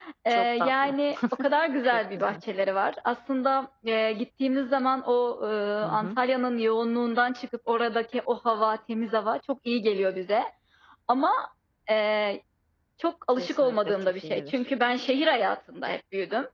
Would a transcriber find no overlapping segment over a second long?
No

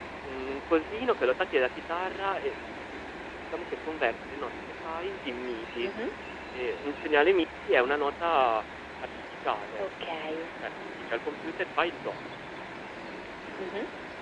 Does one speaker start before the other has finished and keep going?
No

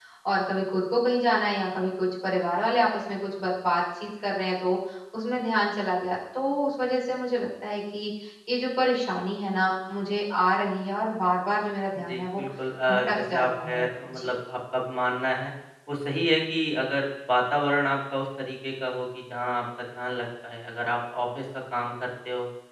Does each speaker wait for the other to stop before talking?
No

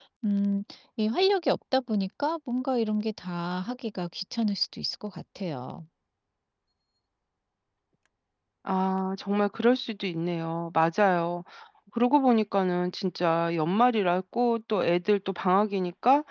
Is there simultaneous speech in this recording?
No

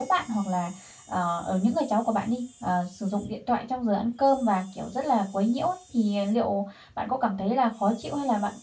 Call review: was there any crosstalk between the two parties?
No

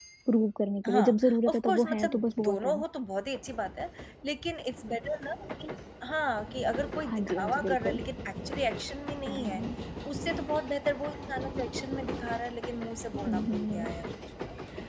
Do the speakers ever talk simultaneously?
Yes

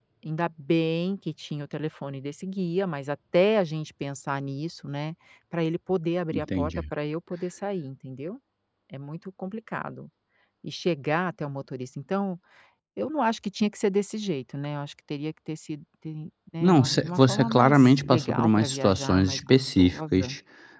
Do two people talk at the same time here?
Yes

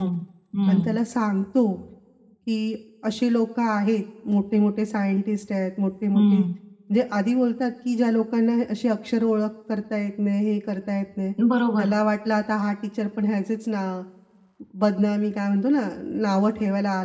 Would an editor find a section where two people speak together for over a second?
No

